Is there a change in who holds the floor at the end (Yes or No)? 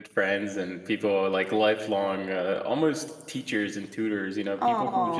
No